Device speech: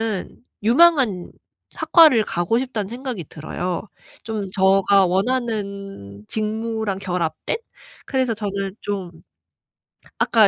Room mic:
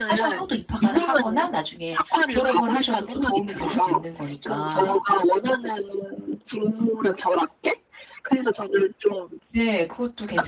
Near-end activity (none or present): present